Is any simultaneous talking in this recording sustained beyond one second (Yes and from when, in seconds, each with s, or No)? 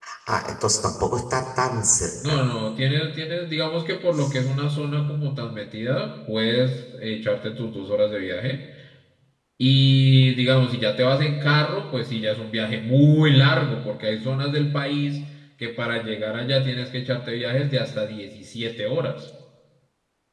No